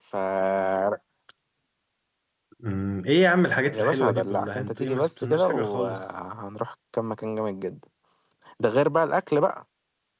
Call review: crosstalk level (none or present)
present